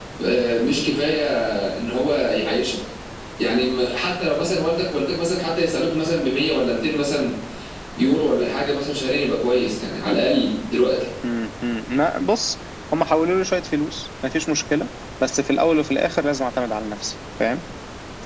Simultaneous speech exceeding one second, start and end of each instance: none

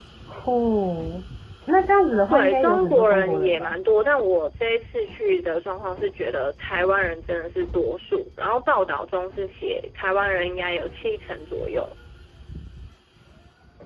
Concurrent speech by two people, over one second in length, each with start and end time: 2.3-3.7

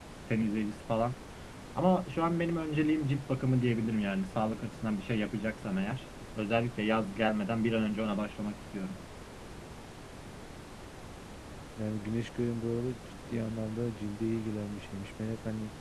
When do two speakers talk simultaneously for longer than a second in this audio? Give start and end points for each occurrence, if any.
none

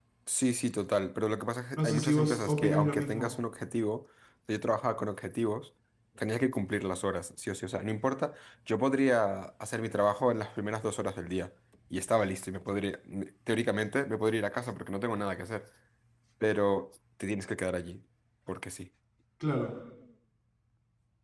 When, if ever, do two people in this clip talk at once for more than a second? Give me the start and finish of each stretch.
1.8-3.3

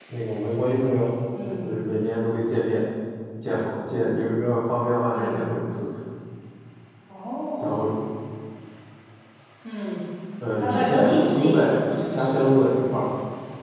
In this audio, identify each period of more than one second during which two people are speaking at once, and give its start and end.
10.6-12.8

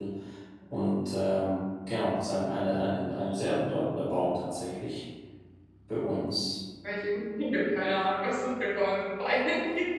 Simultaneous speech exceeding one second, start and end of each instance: none

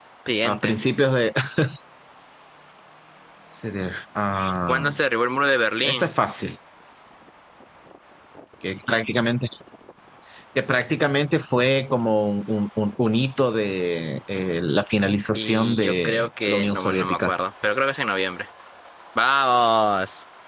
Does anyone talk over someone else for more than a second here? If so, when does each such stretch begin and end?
15.3-17.3

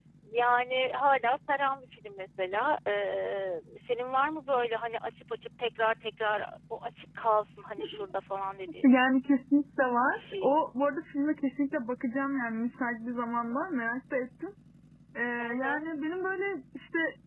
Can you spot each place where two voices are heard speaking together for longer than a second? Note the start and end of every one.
none

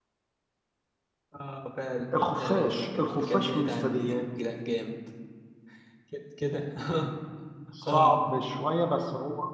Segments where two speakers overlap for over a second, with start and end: 2.4-4.2

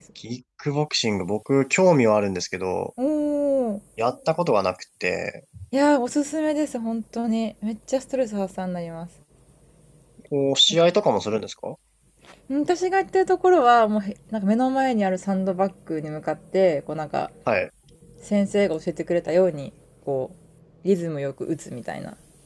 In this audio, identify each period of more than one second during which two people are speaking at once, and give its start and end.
none

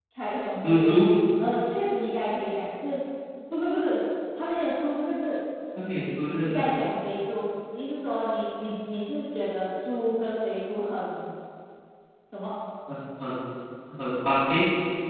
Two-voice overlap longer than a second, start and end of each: none

